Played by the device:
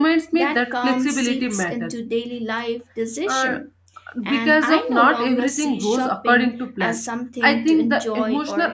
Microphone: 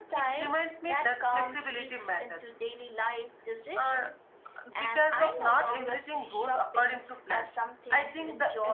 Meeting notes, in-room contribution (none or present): none